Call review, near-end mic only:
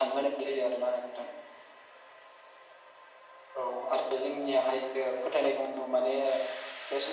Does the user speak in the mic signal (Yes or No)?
No